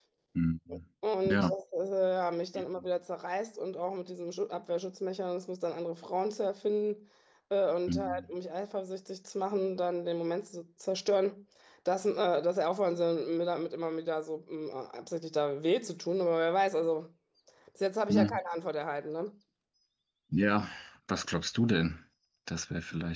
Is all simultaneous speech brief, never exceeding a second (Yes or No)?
Yes